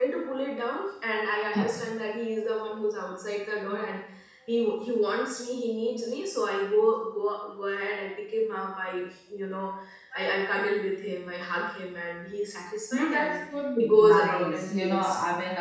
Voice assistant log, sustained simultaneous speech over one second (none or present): present